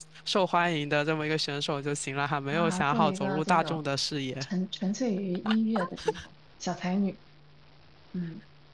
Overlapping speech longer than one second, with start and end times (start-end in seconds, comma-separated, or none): 2.5-3.8